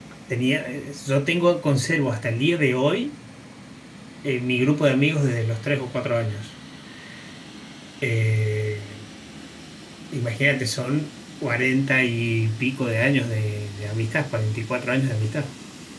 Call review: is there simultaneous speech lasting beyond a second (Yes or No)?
No